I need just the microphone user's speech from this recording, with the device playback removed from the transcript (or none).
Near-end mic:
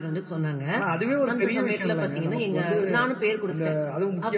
none